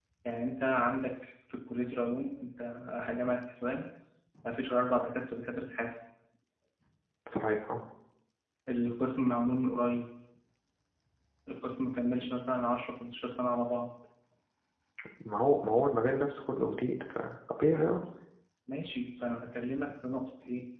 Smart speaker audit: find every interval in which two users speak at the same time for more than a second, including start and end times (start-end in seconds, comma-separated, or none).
none